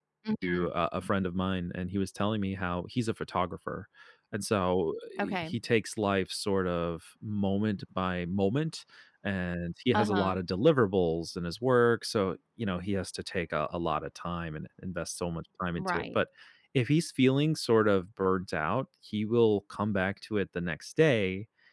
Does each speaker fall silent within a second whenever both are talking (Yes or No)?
Yes